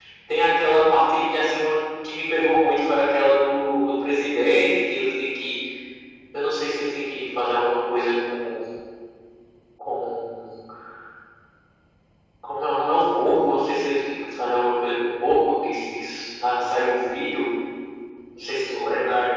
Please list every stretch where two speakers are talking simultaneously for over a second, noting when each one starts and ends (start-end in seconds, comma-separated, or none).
none